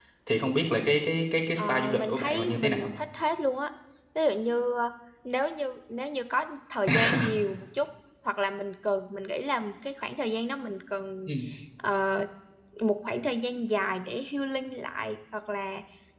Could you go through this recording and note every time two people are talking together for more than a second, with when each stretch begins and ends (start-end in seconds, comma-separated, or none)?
1.6-2.9